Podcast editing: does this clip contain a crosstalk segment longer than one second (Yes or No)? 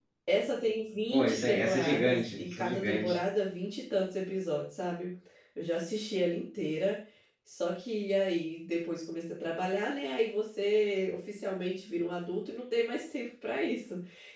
Yes